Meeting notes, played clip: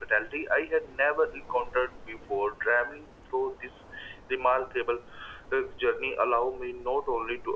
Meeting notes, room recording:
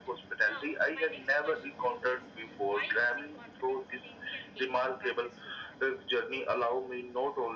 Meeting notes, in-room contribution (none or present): present